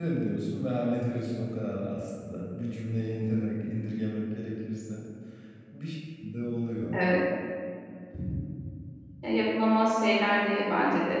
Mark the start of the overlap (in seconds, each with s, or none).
none